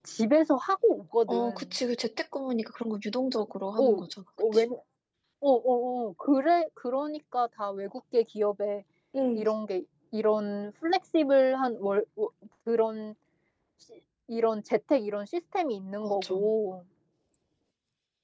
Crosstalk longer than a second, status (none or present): none